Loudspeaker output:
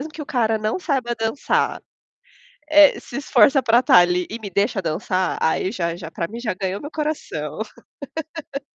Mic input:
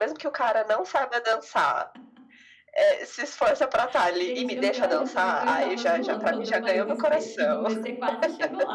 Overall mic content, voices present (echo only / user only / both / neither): both